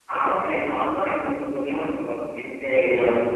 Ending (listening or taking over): taking over